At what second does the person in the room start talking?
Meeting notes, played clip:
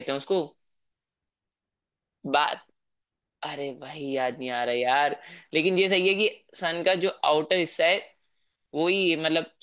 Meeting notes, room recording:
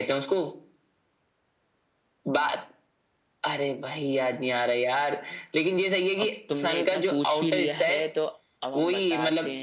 6.2 s

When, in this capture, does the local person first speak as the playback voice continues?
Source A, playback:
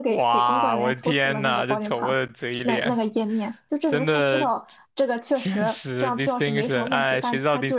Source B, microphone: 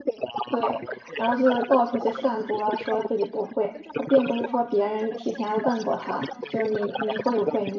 0.5 s

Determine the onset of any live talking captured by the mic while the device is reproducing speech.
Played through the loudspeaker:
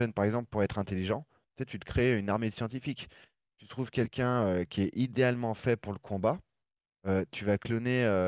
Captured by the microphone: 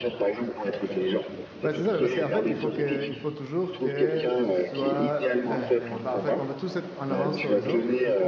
1.6 s

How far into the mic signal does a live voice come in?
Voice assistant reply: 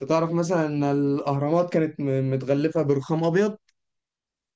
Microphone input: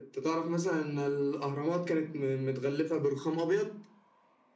none

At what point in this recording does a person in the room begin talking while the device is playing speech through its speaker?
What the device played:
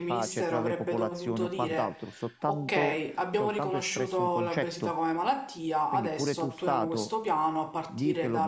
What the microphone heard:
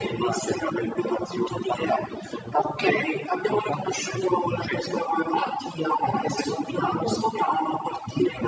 none

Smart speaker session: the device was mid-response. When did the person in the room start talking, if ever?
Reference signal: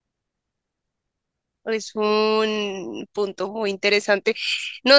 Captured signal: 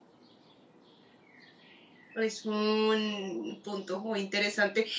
none

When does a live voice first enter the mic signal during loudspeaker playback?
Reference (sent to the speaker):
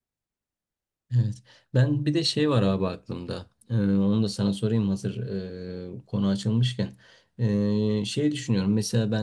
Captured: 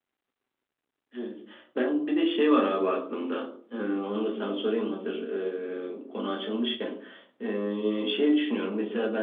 none

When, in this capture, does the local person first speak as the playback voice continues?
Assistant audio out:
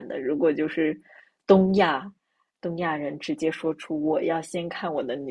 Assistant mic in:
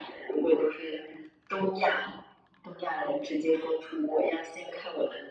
none

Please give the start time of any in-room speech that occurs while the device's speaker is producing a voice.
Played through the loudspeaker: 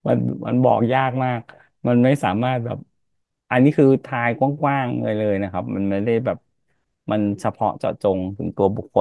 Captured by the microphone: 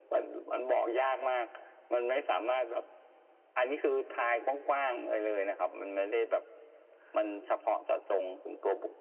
none

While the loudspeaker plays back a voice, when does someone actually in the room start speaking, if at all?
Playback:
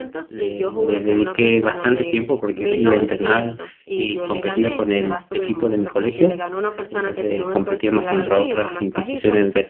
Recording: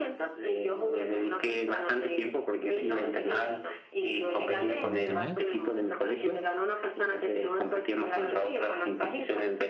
4.5 s

